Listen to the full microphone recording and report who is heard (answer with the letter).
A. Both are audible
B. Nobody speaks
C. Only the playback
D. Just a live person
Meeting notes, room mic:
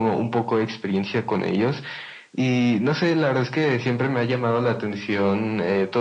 C